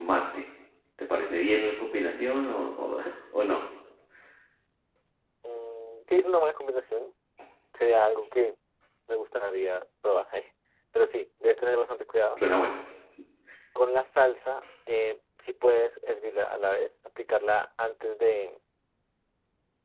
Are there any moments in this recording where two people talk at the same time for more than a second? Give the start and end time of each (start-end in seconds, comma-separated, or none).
none